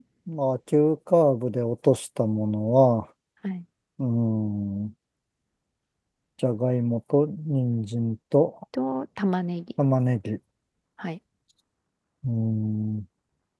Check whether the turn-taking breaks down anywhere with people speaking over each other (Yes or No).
No